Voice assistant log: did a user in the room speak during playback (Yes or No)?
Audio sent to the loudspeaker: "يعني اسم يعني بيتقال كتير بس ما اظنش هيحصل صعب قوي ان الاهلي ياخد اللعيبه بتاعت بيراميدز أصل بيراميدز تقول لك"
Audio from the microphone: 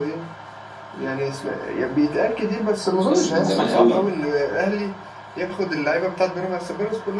Yes